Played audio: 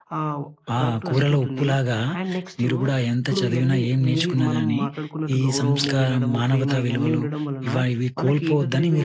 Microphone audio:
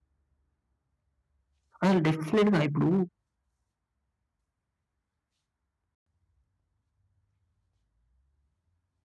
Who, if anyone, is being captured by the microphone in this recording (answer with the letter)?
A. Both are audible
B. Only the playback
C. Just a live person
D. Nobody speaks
C